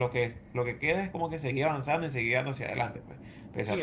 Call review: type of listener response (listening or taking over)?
taking over